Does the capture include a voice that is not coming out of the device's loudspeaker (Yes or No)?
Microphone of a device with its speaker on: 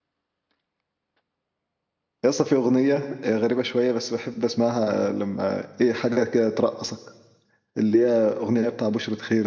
Yes